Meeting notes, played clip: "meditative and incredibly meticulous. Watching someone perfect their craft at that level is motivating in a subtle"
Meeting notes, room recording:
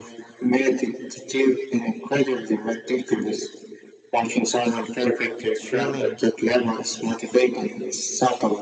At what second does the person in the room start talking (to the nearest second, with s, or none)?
5 s